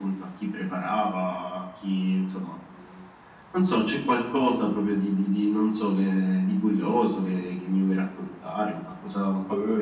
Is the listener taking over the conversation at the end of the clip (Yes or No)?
Yes